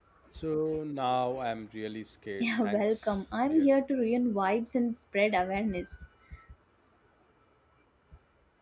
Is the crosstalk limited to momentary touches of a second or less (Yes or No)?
No